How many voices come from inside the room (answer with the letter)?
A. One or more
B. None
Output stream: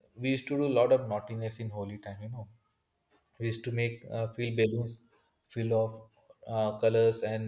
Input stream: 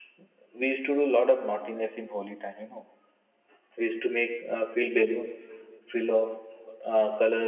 B